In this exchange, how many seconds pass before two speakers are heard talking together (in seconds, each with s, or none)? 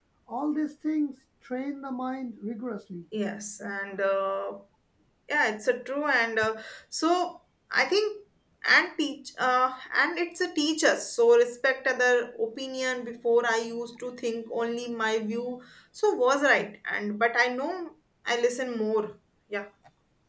none